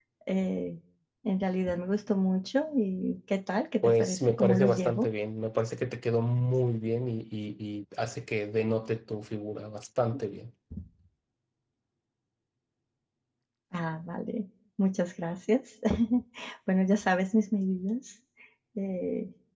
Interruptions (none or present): present